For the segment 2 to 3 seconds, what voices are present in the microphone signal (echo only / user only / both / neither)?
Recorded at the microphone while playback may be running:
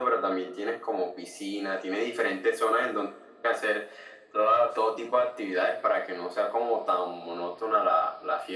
echo only